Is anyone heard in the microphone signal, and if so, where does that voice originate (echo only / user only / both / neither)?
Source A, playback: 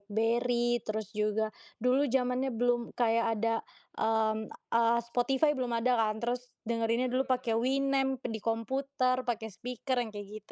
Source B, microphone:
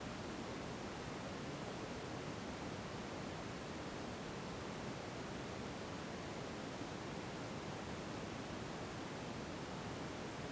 neither